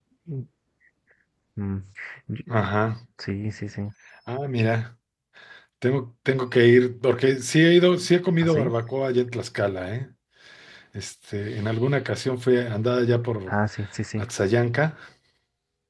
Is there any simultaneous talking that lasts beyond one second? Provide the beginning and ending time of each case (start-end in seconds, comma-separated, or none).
none